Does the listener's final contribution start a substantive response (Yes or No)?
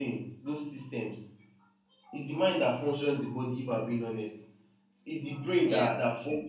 No